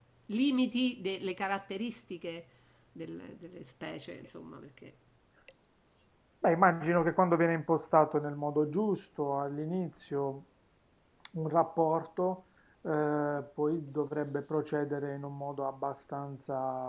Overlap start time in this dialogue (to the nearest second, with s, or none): none